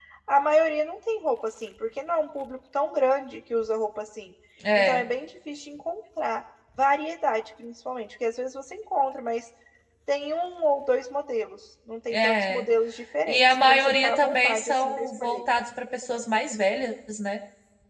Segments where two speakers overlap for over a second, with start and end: 13.3-15.4

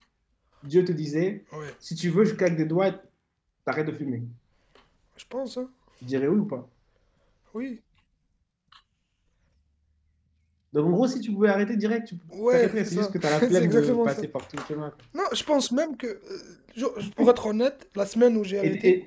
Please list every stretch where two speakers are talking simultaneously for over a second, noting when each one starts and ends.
12.5-14.2

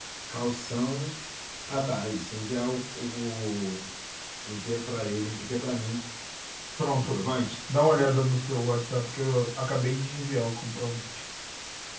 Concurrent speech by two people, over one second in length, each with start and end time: none

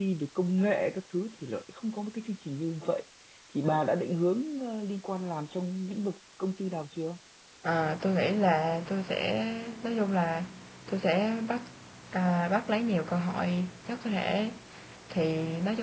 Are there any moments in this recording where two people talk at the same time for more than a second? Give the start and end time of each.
none

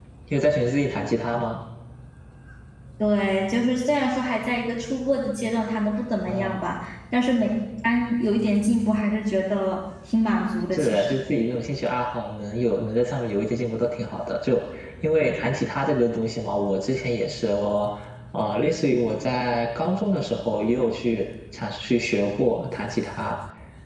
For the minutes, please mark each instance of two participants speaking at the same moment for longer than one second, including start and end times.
none

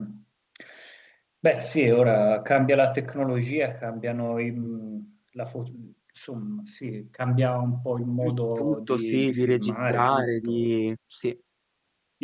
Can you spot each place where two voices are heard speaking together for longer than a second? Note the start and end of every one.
8.2-10.7

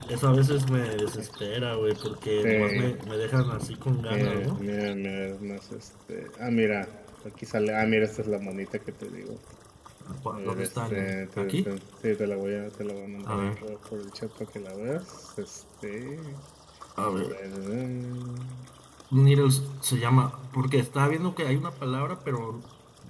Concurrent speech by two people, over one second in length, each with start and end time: 10.3-11.7

